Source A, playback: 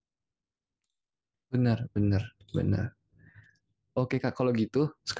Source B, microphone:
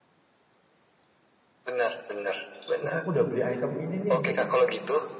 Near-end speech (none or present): present